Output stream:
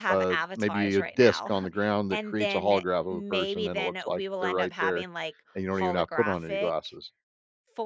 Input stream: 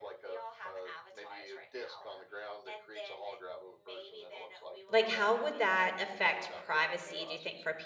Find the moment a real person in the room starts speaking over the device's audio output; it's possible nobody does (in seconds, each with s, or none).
4.9 s